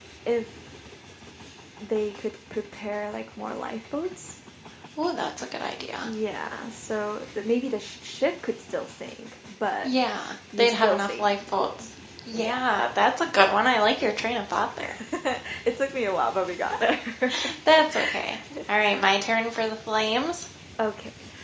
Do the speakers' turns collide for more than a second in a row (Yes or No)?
Yes